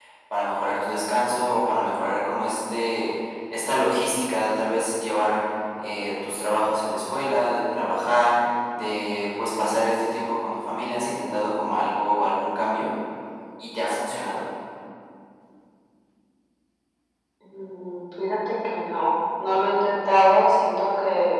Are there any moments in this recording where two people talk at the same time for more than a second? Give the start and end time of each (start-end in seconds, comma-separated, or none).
none